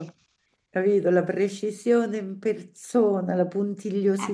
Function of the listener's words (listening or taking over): taking over